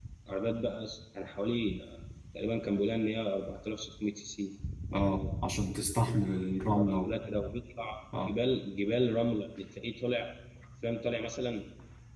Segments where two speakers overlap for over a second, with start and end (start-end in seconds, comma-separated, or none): none